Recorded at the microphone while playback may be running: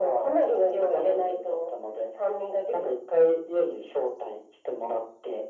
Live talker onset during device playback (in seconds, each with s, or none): none